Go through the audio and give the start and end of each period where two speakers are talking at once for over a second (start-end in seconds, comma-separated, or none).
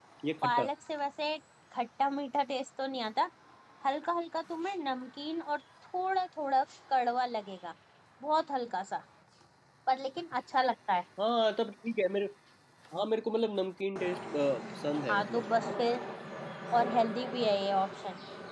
none